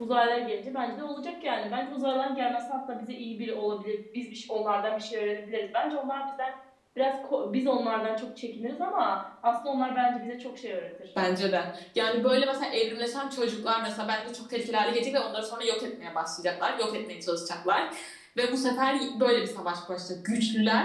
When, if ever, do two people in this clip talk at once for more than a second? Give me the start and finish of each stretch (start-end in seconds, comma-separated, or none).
none